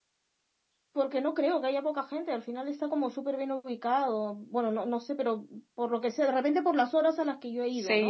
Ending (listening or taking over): taking over